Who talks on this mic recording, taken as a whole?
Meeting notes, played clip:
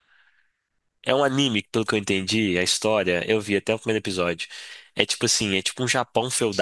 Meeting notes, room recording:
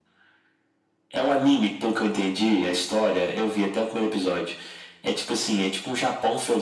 echo only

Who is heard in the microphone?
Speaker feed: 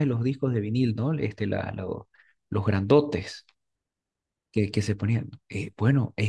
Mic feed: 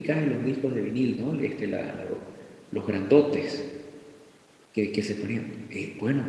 echo only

